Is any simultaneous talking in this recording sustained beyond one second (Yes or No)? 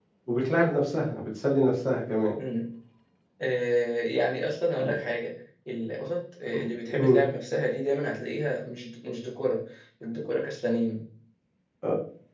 No